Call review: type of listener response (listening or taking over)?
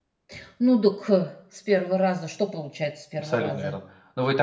taking over